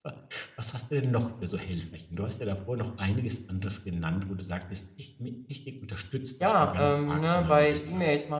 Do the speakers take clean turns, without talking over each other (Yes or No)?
No